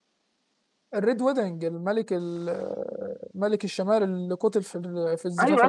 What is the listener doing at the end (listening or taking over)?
taking over